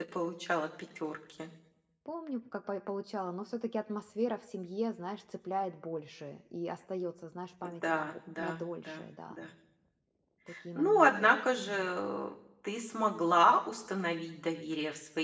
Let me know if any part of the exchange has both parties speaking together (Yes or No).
Yes